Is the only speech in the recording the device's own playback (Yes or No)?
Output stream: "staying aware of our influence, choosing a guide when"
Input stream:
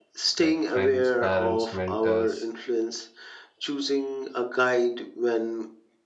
No